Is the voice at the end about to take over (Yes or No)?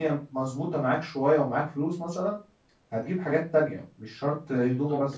Yes